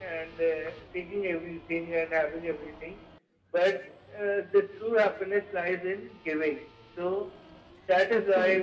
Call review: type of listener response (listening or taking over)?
listening